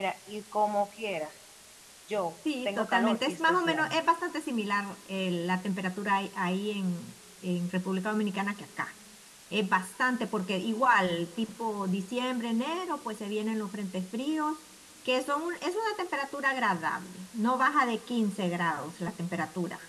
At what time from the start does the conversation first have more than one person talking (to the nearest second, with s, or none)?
3 s